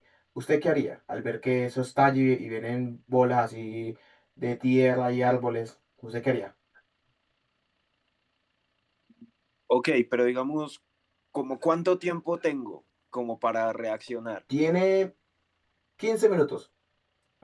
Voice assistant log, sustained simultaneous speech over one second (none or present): none